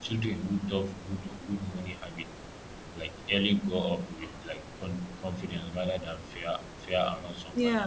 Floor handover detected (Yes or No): Yes